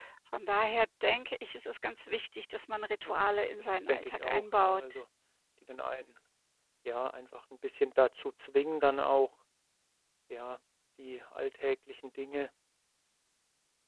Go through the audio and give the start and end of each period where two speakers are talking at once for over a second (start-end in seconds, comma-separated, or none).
3.6-5.0